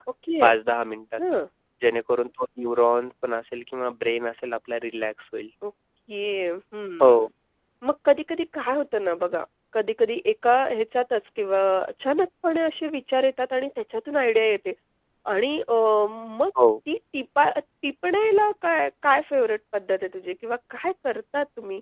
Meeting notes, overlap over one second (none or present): none